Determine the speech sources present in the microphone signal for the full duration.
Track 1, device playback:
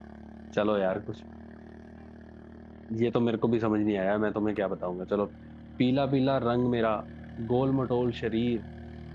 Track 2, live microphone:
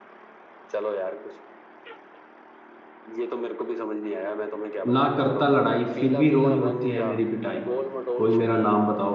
both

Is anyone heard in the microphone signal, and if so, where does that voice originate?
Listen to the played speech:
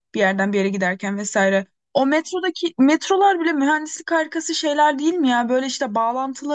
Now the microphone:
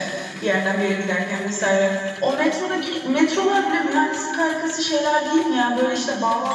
echo only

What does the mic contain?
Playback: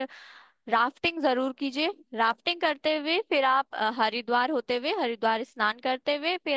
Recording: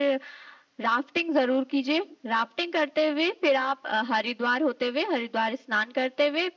echo only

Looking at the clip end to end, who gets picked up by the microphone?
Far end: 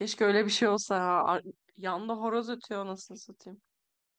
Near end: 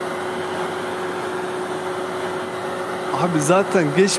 user only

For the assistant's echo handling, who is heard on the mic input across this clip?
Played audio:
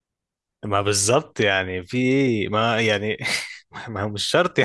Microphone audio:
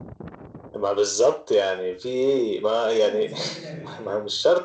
both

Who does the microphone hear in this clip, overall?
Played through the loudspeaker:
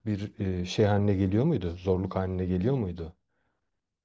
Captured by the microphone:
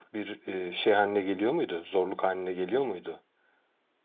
echo only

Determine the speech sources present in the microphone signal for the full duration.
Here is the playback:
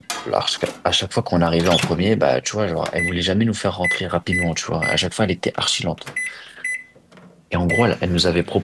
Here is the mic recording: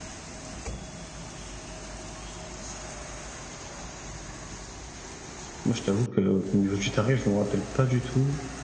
user only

